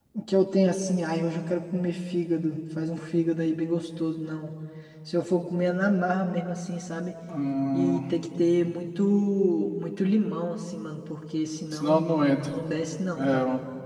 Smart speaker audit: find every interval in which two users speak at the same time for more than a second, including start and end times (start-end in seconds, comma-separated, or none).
none